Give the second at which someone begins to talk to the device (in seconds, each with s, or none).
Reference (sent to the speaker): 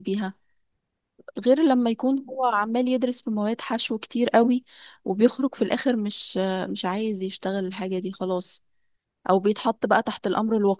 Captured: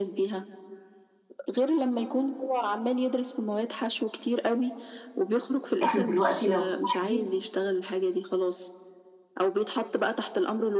5.8 s